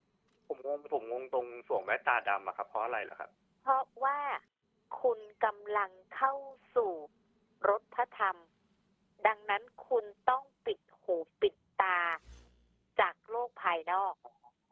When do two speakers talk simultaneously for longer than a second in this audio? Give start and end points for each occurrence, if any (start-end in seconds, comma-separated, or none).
none